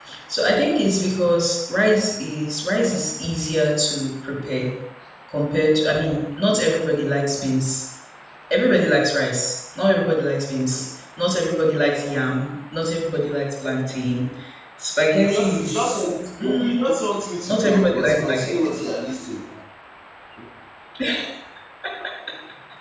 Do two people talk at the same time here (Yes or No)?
Yes